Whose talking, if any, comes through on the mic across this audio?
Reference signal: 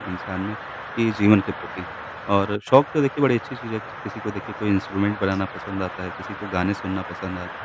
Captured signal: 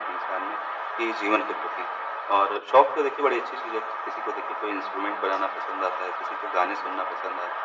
echo only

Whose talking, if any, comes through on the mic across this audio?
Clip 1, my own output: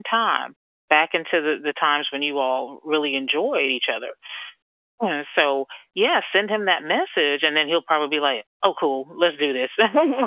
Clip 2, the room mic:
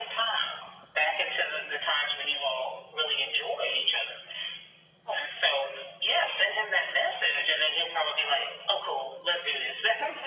echo only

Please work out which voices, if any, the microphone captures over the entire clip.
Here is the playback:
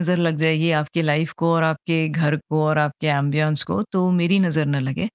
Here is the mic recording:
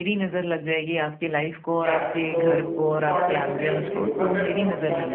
both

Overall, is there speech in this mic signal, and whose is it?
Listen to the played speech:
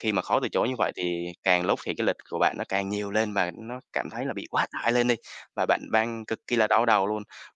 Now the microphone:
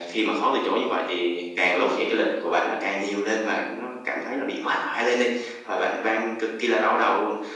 echo only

